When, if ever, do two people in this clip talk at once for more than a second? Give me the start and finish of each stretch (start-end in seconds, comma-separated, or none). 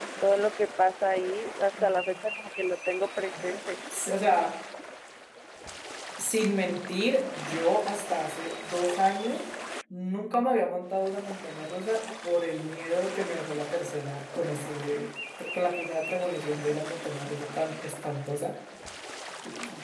none